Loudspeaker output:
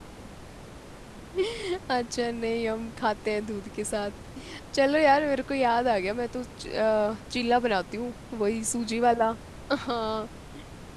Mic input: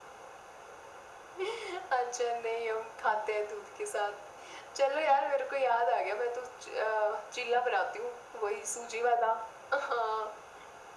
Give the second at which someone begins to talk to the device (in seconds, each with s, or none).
none